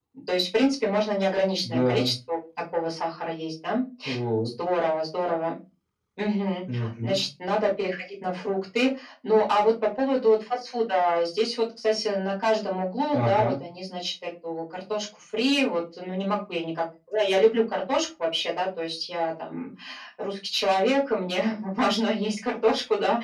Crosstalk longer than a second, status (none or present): none